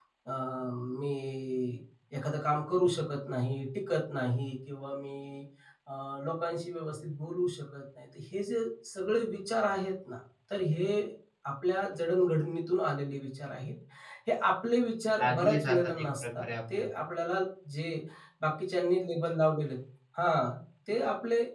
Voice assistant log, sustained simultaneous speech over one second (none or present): present